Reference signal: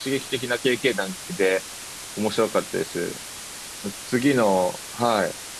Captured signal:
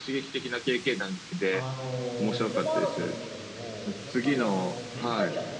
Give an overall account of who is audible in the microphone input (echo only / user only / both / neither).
both